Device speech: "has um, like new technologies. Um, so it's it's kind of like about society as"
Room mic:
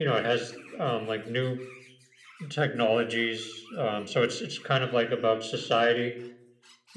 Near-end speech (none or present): none